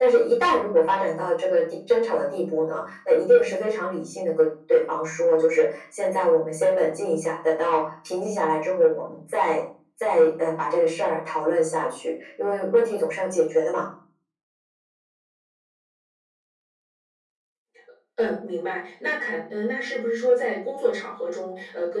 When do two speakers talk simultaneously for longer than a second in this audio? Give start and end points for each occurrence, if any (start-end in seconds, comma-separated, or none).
none